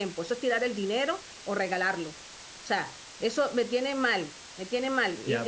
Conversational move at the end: taking over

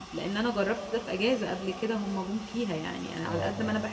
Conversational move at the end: listening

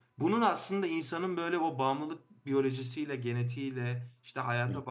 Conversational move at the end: listening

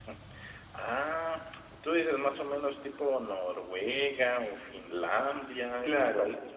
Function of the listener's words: taking over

